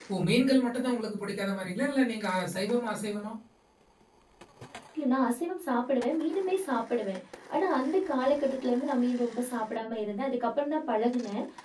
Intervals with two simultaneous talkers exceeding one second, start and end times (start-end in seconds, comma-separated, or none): none